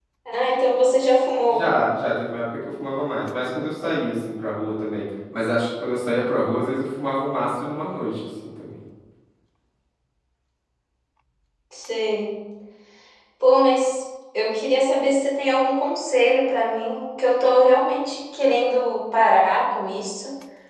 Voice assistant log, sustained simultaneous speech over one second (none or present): none